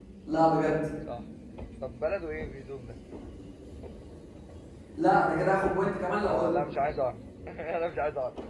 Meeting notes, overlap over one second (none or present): none